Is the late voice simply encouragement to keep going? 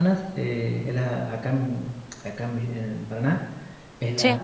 Yes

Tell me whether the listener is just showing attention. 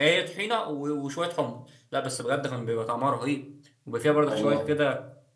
Yes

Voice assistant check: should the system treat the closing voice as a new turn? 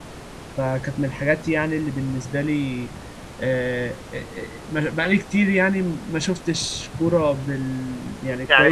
Yes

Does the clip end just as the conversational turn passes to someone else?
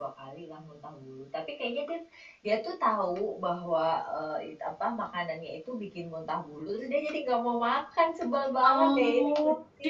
Yes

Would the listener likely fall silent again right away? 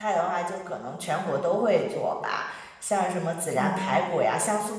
Yes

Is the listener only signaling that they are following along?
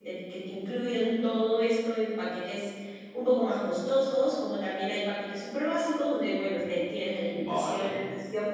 Yes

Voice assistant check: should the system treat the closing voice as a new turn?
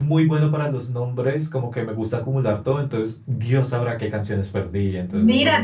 Yes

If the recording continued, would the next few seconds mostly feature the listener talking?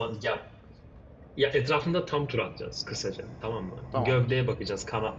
No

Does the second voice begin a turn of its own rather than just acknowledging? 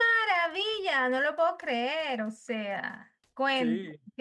No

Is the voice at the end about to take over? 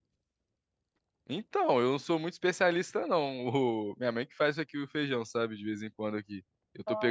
No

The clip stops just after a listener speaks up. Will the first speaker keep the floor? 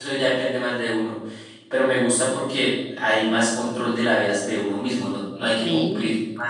Yes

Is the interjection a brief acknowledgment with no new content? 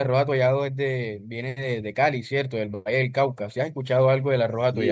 No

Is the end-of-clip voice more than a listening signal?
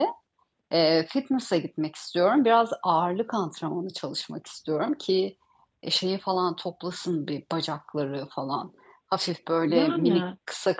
No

